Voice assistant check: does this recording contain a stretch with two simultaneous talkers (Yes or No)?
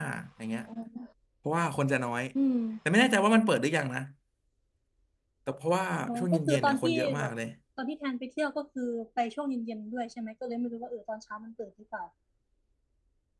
Yes